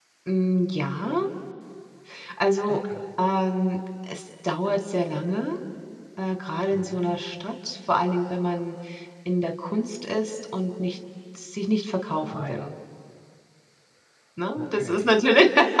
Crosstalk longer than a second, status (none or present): none